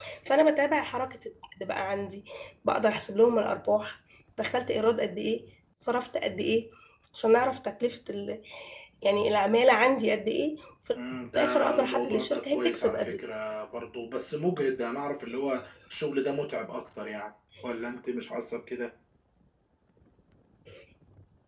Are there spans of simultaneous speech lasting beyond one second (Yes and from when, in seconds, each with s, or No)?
Yes, from 11.3 s